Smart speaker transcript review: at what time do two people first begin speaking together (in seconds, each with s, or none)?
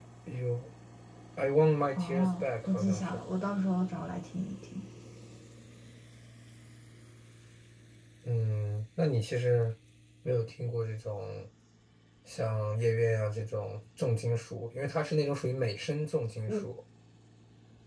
2.0 s